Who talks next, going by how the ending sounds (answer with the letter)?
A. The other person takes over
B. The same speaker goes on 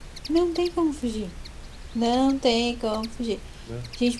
B